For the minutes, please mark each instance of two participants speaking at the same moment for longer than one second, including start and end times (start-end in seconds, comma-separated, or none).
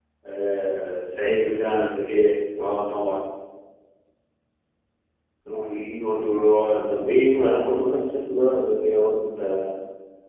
none